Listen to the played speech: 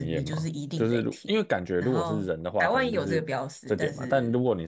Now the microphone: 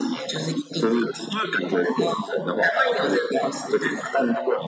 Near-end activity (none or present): none